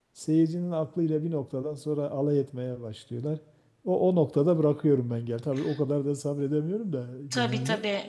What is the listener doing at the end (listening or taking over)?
taking over